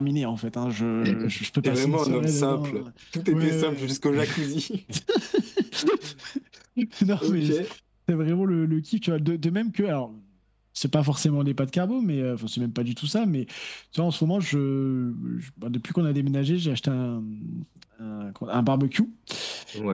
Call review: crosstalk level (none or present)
present